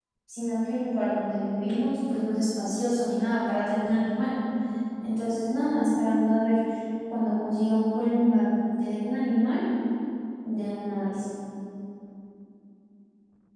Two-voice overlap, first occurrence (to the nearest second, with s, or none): none